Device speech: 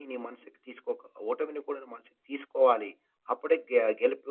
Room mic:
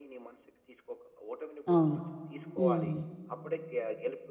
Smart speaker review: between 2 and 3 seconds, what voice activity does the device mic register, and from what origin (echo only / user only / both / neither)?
both